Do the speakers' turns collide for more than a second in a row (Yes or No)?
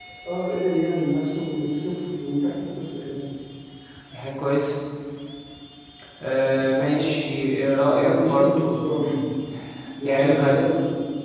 Yes